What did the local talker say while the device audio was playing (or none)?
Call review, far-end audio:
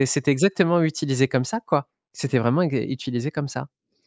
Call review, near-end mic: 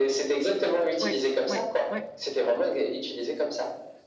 Ouais, ouais, ouais,